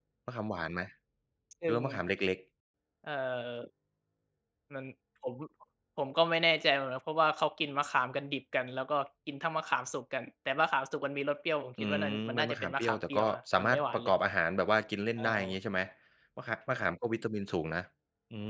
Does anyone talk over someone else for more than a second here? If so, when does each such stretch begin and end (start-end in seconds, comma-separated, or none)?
11.8-14.1